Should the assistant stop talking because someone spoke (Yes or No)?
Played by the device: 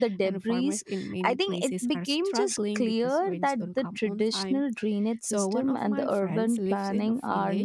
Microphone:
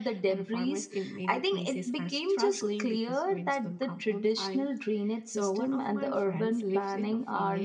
No